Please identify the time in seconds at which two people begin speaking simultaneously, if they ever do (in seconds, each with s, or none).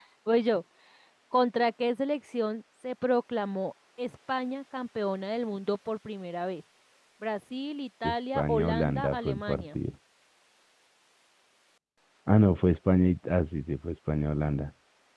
8.0 s